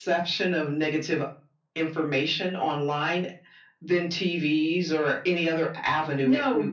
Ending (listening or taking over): taking over